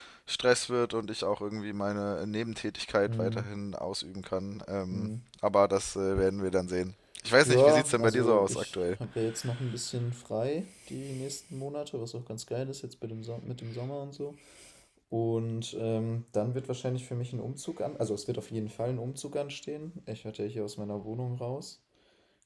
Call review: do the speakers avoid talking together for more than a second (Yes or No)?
No